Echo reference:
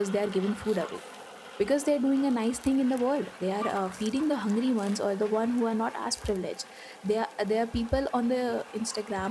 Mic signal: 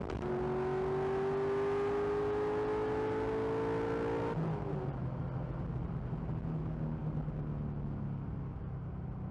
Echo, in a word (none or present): none